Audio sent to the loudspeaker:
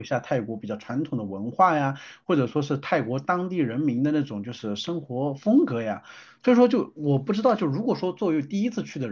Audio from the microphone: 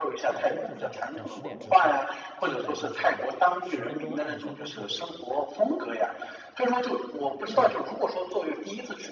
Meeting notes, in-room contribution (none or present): present